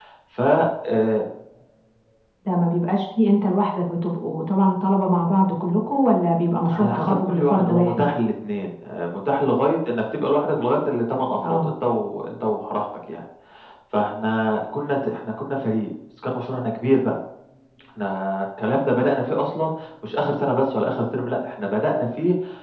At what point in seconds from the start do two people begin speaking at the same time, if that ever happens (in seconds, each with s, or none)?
6.7 s